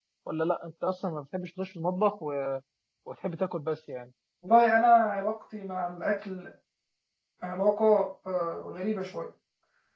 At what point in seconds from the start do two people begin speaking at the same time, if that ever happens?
none

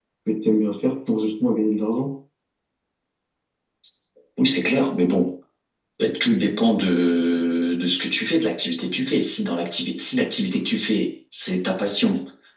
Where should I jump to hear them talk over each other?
none

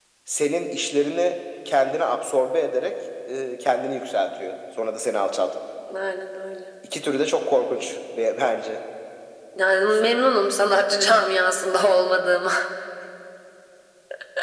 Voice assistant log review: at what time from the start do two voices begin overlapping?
none

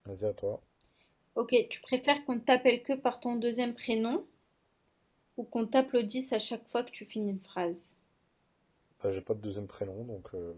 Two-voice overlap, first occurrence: none

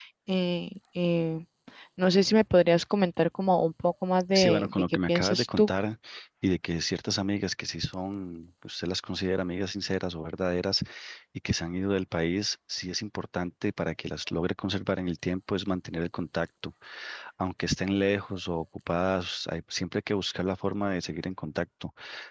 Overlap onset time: 4.3 s

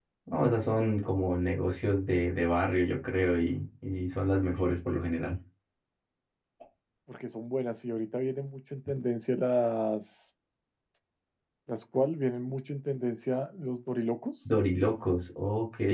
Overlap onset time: none

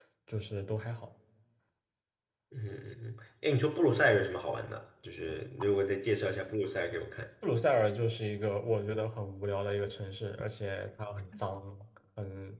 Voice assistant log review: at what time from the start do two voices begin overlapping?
none

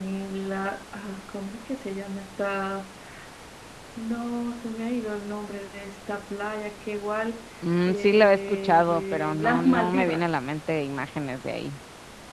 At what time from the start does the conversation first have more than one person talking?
7.9 s

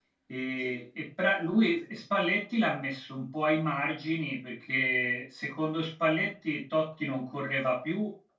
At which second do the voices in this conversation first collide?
none

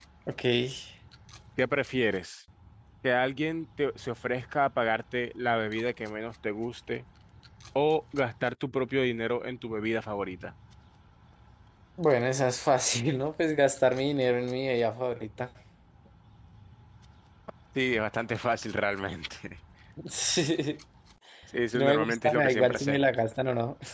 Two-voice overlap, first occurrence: 21.7 s

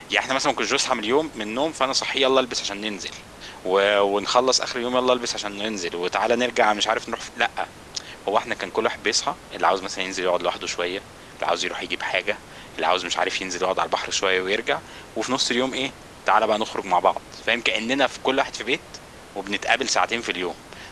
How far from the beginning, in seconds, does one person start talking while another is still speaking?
none

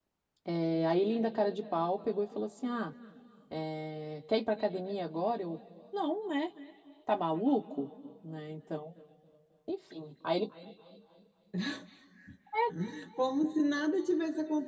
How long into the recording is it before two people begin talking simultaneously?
none

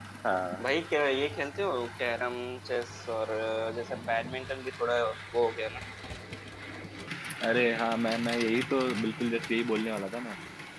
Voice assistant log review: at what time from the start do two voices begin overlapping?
none

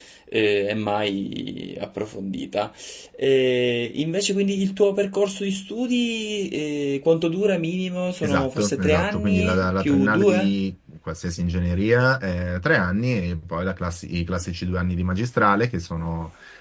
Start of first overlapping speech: 8.2 s

